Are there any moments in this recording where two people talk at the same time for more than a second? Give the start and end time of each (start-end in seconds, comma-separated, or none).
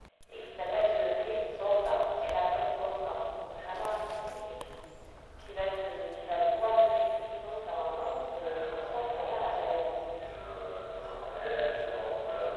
8.3-10.0